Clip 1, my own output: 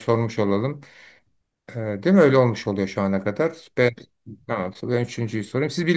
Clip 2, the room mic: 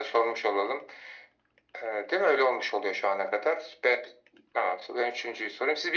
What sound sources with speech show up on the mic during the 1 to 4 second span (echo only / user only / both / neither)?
echo only